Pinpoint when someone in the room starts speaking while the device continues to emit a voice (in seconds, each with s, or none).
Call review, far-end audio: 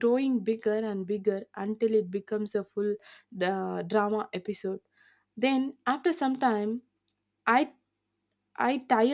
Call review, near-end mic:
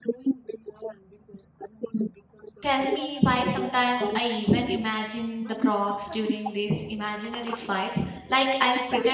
2.6 s